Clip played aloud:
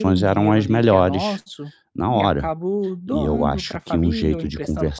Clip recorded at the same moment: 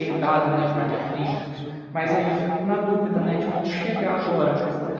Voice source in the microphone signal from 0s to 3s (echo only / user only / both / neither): both